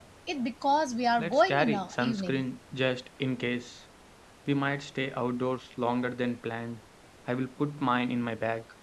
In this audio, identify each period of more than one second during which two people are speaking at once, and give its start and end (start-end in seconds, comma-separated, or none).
1.2-2.4